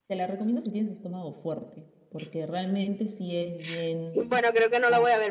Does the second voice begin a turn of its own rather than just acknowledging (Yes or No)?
Yes